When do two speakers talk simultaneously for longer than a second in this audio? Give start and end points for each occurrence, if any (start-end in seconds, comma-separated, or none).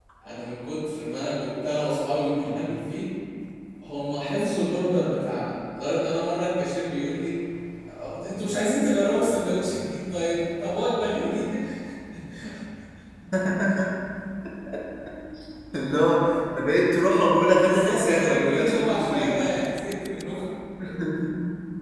17.6-19.8